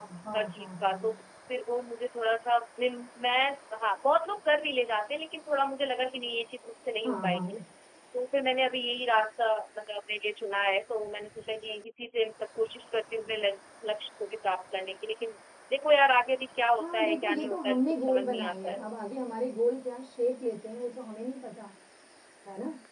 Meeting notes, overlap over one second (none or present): present